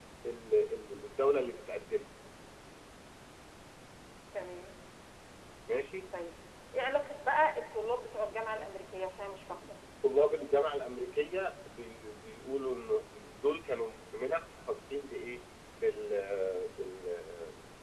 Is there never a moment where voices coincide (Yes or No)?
Yes